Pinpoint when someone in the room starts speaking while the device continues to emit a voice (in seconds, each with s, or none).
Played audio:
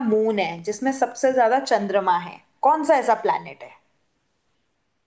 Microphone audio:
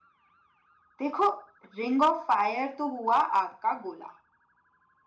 1.0 s